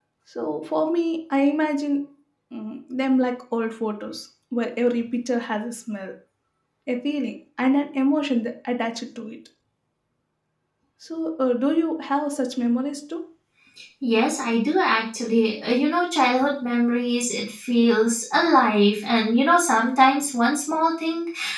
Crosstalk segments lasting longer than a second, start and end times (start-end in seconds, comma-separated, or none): none